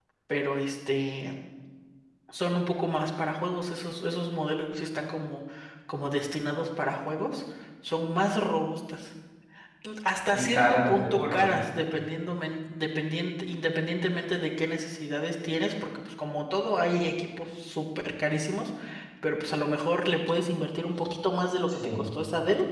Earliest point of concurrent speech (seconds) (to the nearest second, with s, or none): 10 s